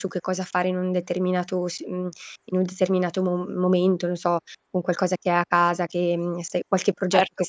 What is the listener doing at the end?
taking over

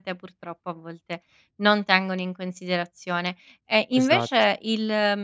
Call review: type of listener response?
listening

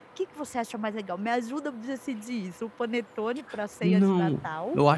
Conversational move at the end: taking over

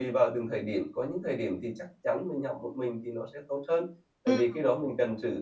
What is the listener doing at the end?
listening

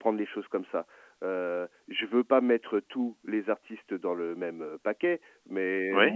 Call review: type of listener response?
listening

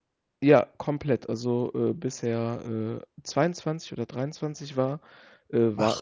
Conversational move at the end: listening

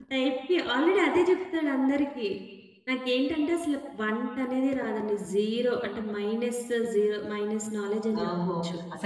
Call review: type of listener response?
taking over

